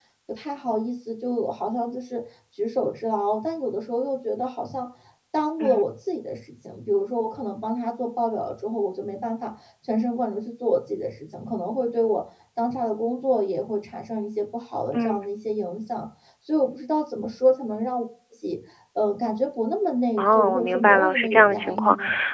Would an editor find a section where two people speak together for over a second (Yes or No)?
Yes